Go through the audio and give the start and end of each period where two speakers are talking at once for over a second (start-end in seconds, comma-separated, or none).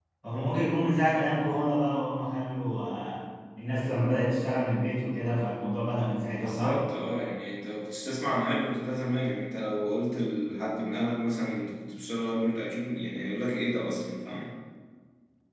none